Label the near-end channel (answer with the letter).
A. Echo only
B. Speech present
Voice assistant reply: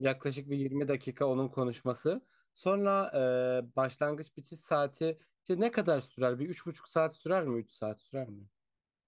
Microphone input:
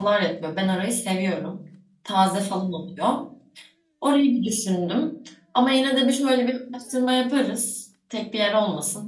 B